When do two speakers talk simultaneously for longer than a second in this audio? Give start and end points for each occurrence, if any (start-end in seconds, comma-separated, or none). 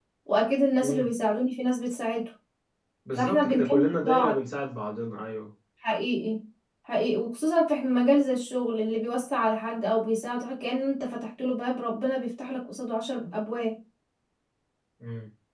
3.2-4.4